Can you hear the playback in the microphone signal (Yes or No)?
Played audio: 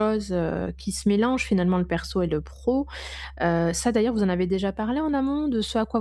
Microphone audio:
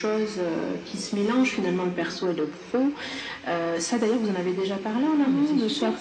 Yes